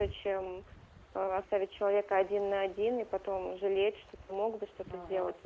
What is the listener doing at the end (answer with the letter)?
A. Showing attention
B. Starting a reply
A